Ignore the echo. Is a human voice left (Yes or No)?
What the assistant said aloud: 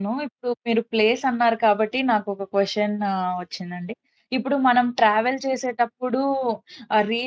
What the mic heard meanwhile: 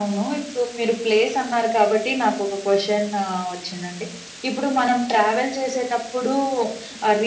No